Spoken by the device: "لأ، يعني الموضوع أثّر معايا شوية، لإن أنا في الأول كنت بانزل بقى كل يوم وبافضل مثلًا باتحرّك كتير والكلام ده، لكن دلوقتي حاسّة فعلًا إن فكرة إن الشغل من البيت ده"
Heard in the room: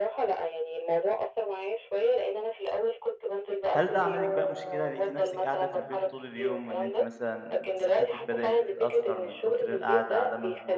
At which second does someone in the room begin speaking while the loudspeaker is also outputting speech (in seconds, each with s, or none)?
3.7 s